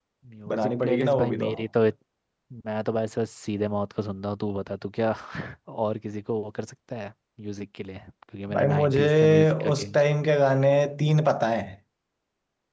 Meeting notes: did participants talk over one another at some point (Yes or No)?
Yes